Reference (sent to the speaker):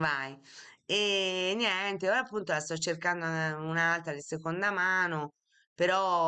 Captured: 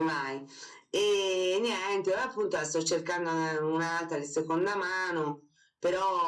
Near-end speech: none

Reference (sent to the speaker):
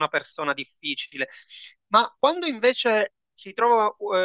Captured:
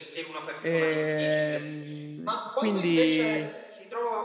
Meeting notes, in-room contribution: present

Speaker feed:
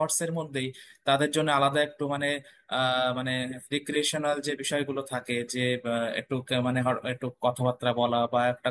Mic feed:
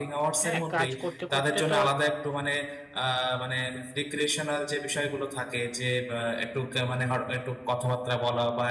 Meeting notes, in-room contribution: present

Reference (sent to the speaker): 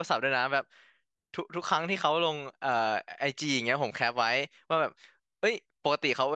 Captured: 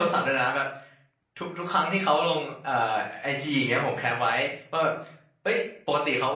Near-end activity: none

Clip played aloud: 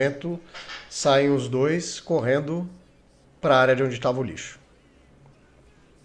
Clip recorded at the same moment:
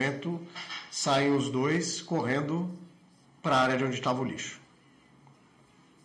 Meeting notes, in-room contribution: none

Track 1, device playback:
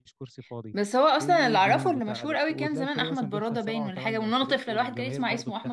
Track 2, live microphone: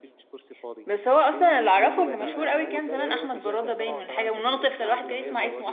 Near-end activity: present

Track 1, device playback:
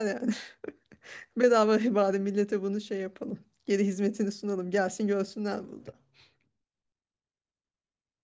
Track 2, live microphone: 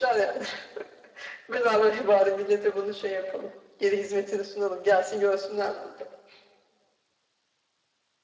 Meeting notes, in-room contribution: none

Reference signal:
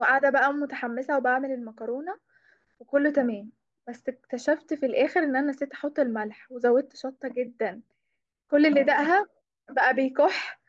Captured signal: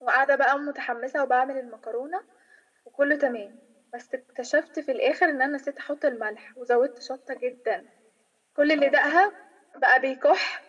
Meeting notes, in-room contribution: none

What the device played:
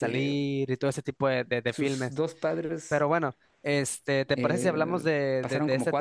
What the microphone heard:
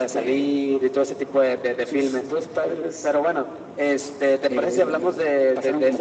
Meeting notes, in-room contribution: none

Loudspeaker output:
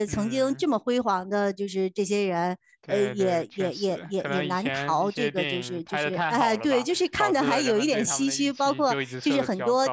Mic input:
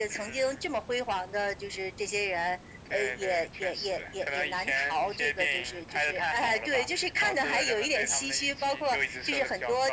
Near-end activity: none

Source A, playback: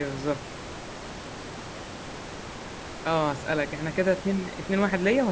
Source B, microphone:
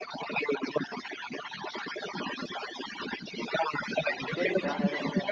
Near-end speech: present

